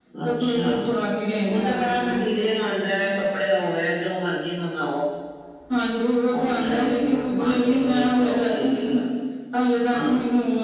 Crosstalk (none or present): present